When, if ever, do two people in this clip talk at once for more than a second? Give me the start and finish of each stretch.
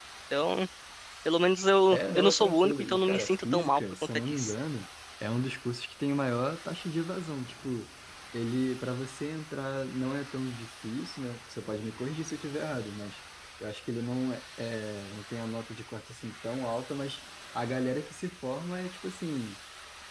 1.9-4.5

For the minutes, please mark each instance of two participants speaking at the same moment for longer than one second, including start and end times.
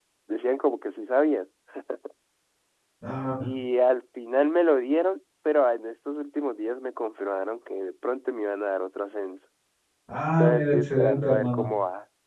10.4-11.7

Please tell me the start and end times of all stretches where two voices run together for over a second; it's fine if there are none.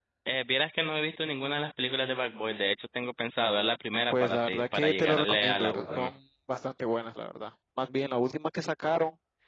4.1-6.1

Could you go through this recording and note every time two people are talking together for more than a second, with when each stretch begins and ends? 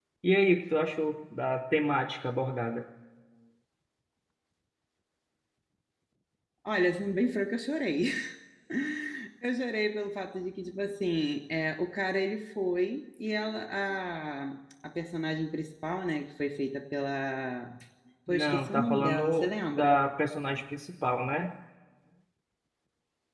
18.3-20.0

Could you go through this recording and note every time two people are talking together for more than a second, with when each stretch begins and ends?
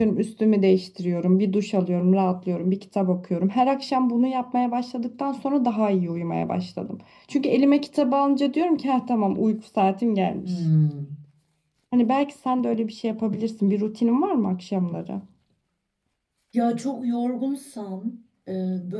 none

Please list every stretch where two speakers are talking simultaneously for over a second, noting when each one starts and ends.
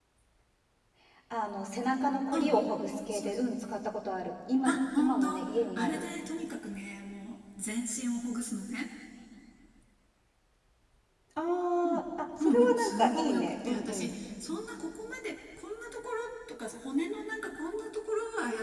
4.7-6.1, 12.4-14.1

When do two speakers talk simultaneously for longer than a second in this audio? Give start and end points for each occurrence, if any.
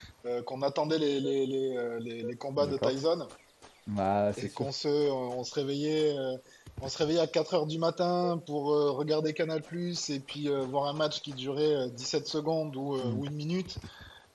none

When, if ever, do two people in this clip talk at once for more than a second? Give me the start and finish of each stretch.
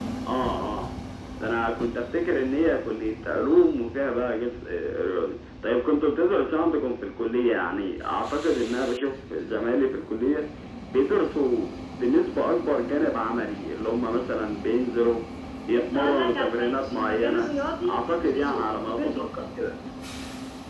15.7-17.5, 17.9-19.5

